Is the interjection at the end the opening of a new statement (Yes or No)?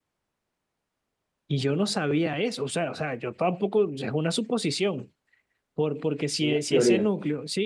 No